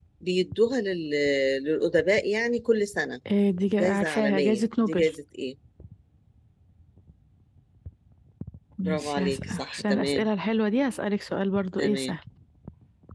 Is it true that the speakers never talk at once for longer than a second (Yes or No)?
No